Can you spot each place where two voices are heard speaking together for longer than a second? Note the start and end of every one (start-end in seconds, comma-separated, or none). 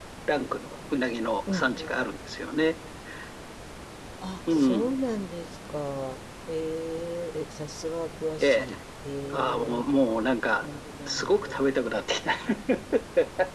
none